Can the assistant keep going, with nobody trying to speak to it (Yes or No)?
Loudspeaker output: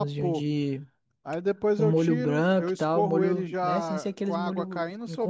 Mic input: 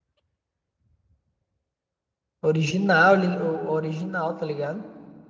No